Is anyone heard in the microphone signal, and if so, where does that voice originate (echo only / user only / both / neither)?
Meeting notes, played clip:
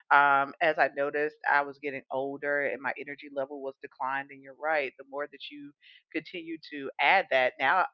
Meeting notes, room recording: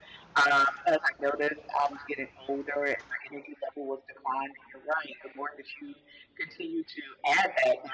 echo only